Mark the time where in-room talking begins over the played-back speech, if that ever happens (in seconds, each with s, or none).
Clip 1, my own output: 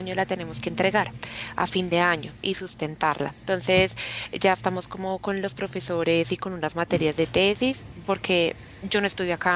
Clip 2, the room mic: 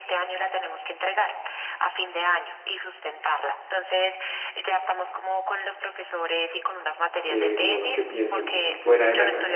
7.2 s